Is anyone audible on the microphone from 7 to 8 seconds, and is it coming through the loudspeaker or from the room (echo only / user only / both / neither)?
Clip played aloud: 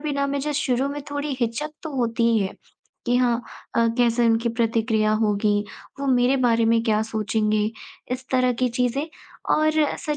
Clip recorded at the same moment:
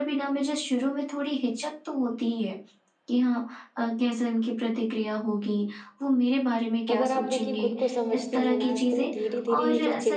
both